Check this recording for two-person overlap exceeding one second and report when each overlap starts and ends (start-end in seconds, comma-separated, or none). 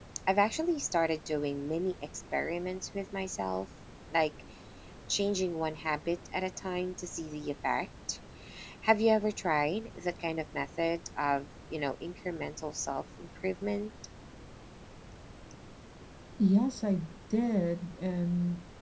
none